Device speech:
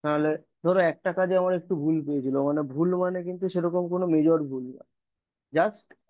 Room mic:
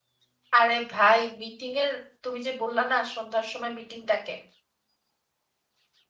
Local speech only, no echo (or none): আরে ভাই মিটিং এর তুমি যে বললা না সন্ধ্যার সময় মিটিং ডাকে